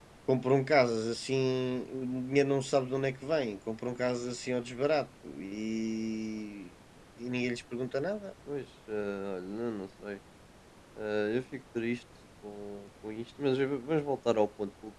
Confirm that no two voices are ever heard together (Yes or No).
Yes